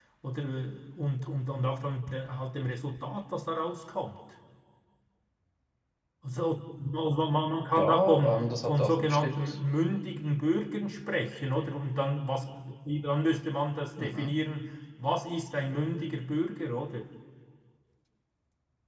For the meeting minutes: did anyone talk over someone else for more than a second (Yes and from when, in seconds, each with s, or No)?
Yes, from 7.8 s